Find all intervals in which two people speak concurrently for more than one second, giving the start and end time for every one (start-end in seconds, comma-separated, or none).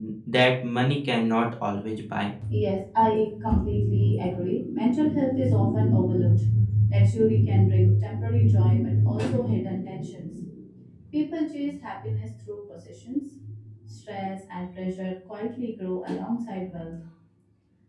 none